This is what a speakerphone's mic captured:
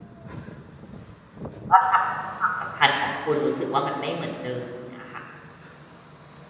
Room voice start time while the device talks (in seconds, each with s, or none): 1.7 s